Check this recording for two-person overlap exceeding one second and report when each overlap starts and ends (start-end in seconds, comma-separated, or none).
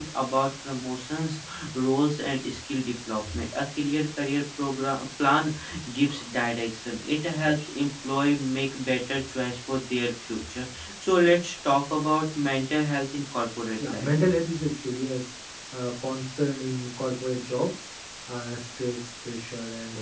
none